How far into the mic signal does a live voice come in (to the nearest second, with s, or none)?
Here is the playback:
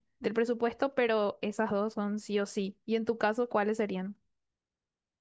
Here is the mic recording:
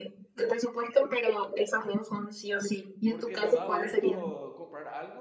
3 s